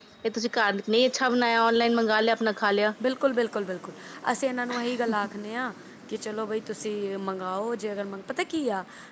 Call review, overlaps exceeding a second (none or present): none